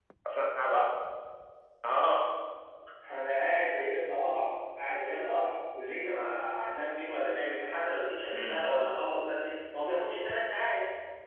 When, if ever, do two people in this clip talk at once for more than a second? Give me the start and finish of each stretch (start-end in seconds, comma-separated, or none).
none